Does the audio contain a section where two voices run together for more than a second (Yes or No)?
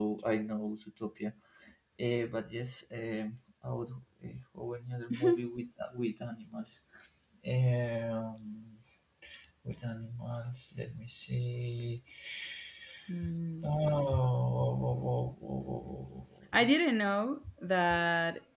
No